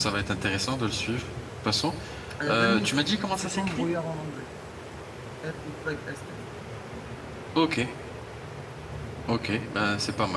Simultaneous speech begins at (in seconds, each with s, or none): 2.5 s